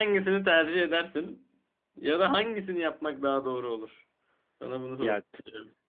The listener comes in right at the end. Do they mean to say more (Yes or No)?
Yes